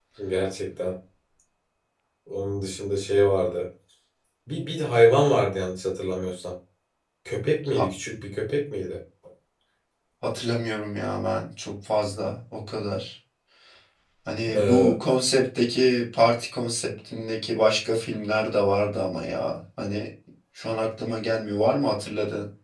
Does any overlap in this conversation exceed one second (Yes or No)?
No